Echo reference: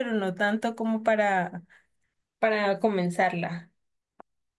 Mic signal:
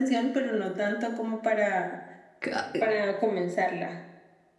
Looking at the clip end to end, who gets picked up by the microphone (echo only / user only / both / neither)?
both